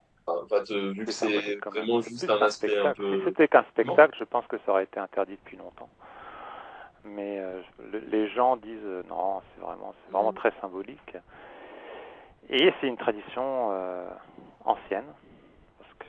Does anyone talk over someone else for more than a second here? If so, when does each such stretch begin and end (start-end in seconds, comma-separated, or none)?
1.2-3.3